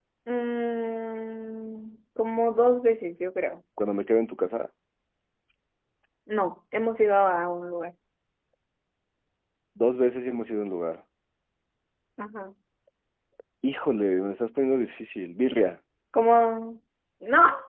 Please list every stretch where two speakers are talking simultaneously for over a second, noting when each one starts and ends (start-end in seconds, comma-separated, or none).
none